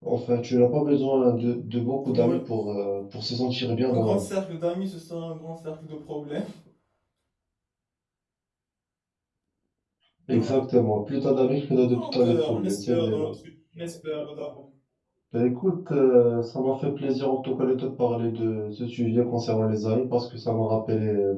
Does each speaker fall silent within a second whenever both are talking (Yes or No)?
No